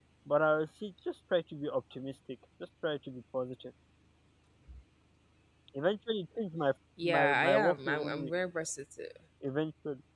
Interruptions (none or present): present